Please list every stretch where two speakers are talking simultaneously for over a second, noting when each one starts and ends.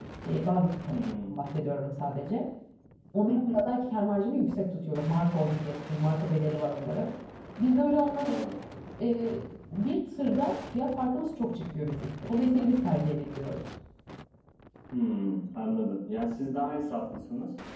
none

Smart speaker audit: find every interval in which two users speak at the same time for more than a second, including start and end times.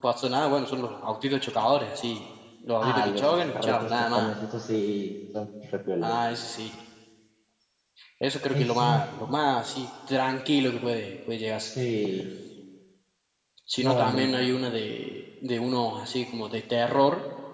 2.8-4.3

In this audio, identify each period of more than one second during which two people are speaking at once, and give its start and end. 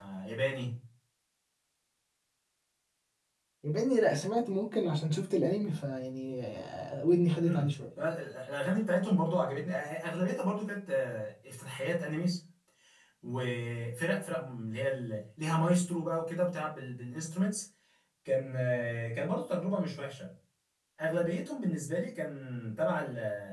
none

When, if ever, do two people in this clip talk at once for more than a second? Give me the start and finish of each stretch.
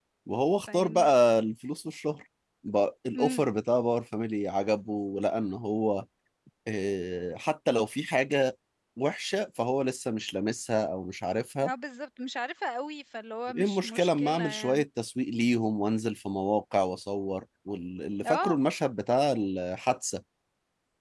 13.6-14.8

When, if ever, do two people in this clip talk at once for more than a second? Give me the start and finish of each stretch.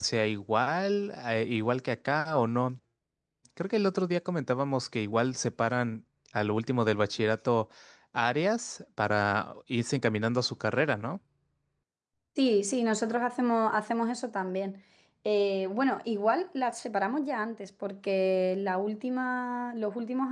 none

